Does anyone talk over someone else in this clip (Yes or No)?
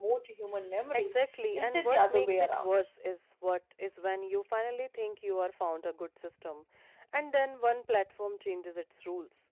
Yes